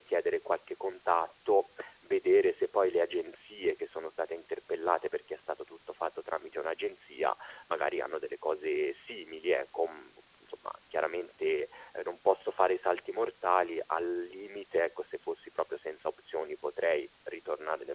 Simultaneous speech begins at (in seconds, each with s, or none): none